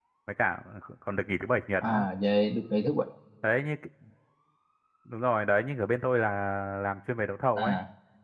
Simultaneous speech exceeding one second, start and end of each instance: none

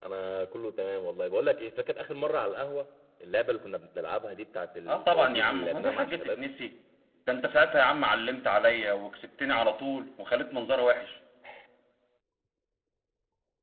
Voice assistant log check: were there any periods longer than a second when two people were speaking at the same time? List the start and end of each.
4.9-6.4

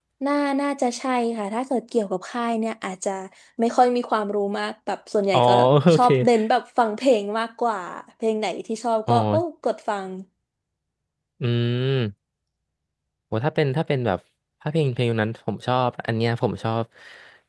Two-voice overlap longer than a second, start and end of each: none

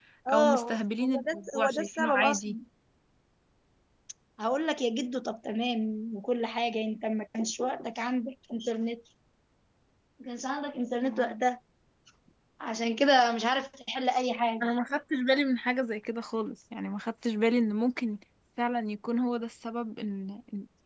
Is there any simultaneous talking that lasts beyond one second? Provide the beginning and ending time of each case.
1.0-2.6

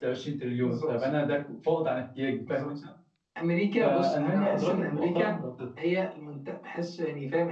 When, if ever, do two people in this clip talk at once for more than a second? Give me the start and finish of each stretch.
3.8-5.3

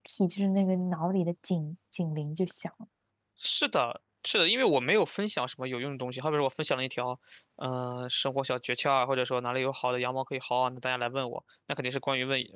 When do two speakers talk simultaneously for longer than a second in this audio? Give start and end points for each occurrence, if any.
none

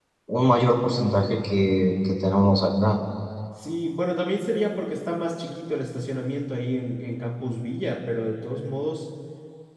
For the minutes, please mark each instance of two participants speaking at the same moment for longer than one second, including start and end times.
none

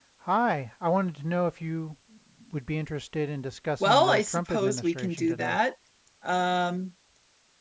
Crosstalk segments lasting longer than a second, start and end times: 3.8-5.6

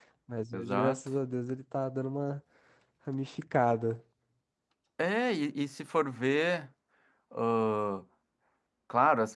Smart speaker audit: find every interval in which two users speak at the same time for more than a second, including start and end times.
none

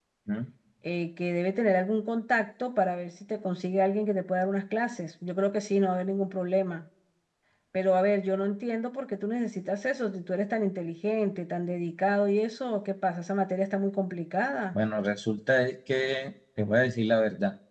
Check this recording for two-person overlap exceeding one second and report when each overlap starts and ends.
none

